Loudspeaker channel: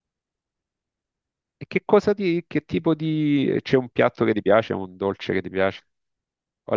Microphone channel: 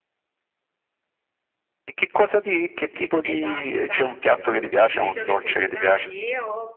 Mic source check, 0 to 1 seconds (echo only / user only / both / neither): neither